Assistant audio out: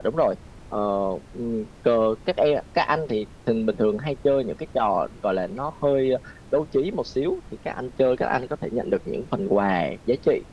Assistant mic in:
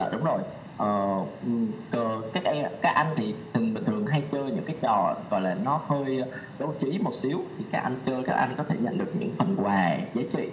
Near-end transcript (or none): none